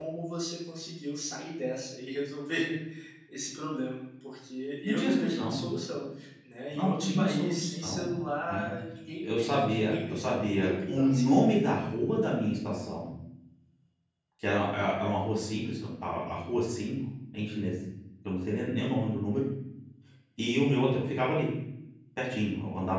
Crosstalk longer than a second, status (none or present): present